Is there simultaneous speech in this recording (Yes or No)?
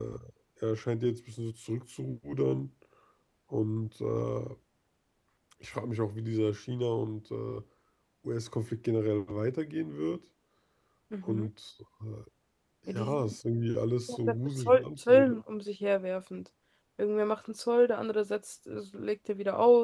Yes